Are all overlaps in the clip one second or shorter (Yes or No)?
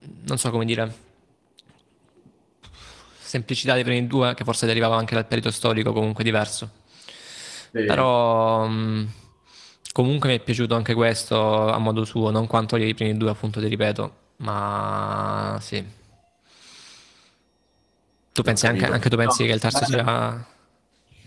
No